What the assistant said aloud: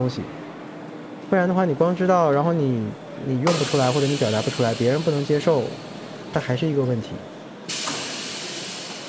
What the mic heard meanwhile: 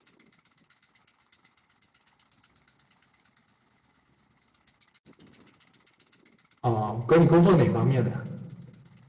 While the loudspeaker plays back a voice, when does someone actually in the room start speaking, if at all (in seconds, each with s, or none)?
6.6 s